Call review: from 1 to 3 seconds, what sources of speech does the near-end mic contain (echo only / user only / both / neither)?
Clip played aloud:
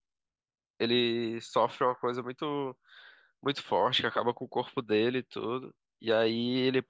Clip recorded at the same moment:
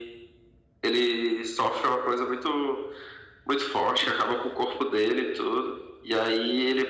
echo only